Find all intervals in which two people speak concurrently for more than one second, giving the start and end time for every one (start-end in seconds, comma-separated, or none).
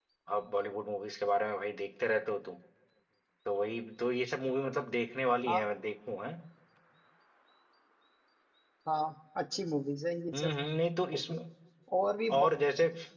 none